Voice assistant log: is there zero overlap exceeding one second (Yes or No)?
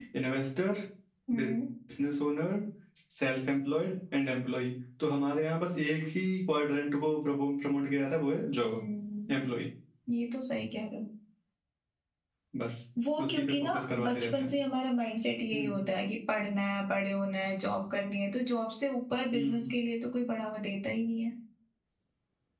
No